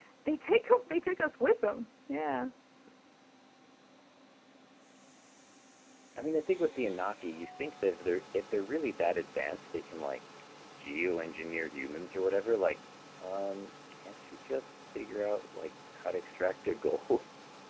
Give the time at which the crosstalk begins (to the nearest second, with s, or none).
none